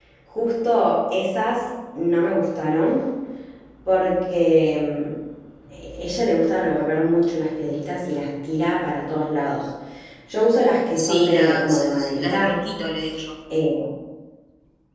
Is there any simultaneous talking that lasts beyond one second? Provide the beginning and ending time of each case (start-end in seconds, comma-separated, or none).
10.9-12.5